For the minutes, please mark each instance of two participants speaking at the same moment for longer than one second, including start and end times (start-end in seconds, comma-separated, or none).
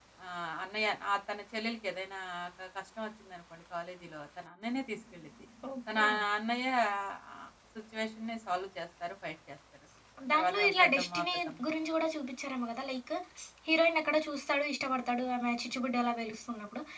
10.3-11.5